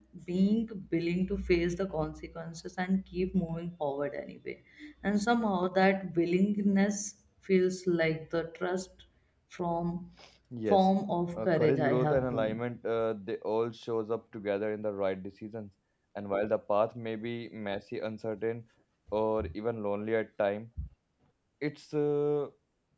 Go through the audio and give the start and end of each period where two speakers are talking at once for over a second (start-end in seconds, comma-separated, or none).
11.4-12.6